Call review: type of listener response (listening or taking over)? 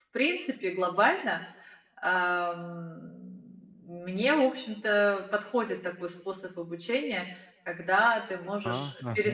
listening